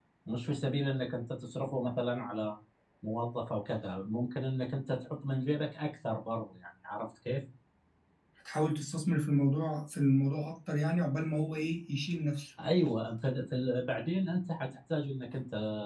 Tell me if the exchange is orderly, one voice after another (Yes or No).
Yes